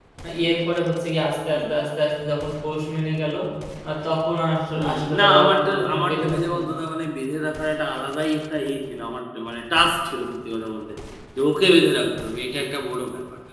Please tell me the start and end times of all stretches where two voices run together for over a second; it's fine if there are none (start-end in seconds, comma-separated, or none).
4.7-6.6